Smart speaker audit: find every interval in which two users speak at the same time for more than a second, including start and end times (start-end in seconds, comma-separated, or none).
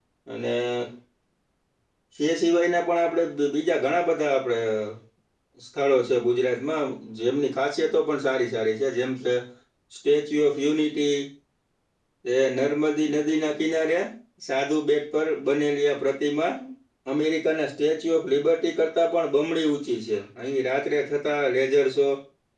none